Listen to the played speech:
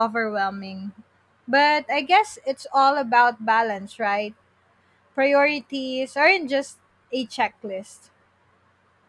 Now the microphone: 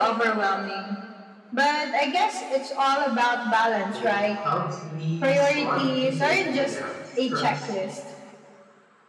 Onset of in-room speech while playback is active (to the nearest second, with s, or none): 4 s